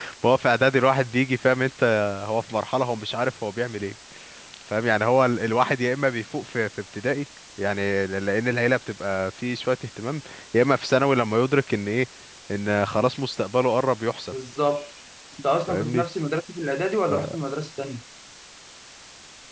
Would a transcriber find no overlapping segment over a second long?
Yes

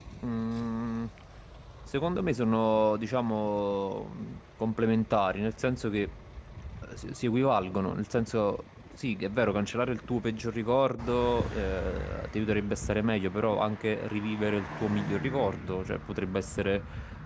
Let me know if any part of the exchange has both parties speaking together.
No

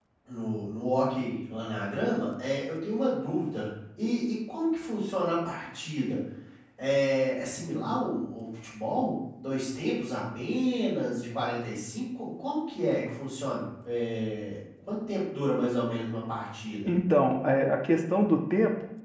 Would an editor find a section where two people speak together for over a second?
No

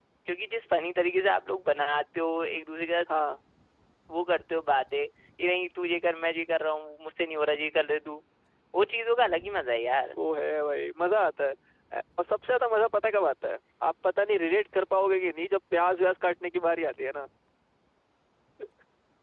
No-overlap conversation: Yes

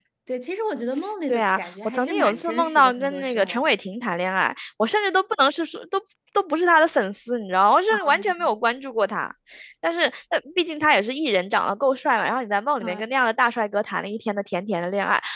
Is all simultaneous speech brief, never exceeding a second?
No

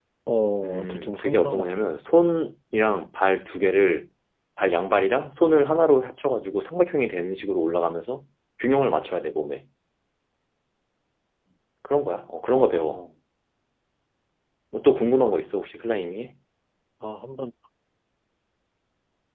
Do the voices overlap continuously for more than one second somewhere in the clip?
Yes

